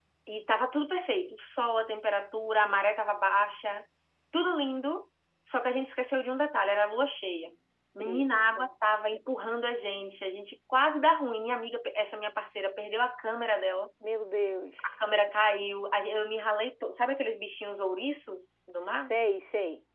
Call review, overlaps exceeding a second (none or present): none